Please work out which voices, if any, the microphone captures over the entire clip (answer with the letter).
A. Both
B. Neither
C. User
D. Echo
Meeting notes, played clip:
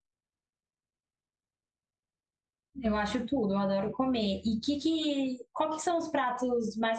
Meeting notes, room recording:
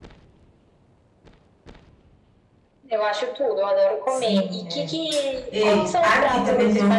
A